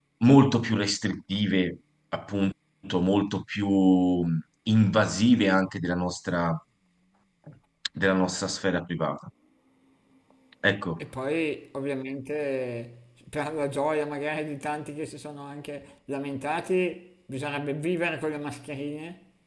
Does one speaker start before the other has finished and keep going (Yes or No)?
No